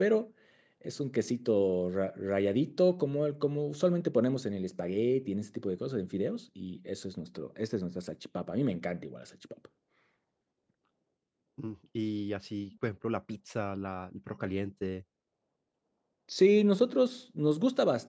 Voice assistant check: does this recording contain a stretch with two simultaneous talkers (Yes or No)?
No